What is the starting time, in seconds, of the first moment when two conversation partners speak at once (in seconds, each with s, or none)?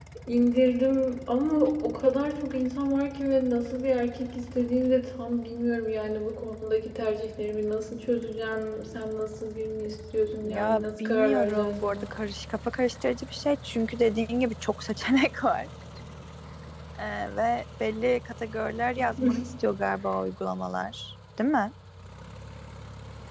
10.4 s